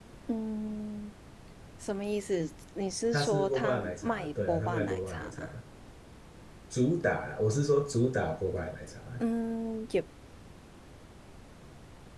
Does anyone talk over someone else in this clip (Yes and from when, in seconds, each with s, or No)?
Yes, from 3.1 s